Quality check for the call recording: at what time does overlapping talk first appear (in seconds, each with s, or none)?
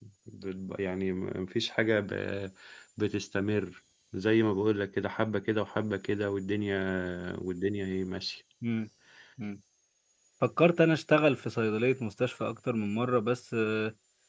none